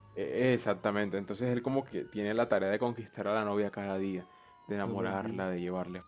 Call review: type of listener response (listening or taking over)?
listening